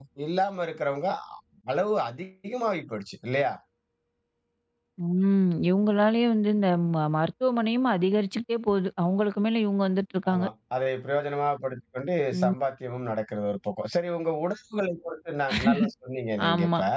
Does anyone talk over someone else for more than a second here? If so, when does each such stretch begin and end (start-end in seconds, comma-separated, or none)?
none